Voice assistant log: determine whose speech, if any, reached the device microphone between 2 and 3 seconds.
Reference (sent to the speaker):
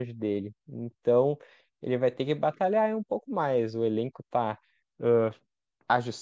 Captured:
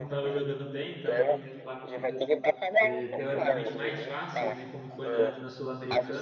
both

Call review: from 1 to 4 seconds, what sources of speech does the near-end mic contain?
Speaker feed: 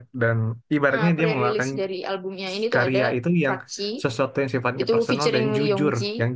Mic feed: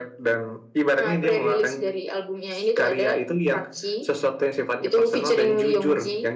echo only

